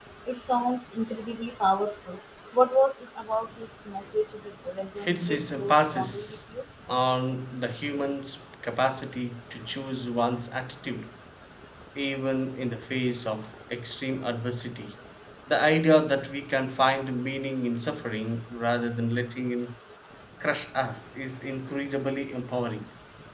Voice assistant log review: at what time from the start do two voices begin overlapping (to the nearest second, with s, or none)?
5 s